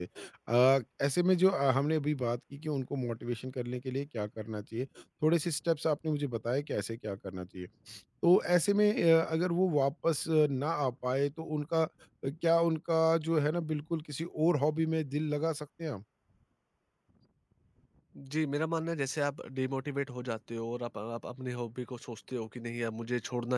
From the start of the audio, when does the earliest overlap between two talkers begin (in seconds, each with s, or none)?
none